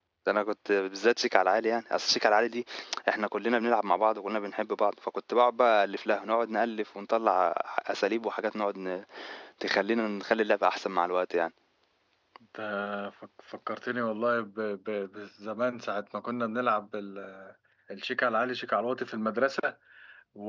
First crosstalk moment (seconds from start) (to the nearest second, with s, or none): none